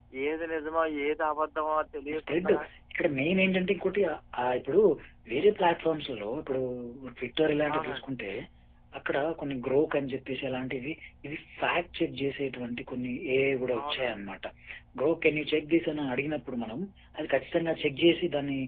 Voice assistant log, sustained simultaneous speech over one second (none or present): none